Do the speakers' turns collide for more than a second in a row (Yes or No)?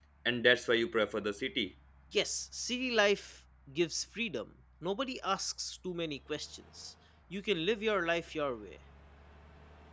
No